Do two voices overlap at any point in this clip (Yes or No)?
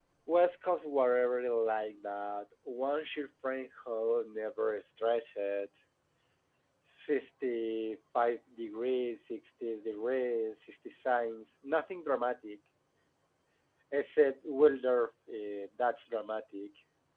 No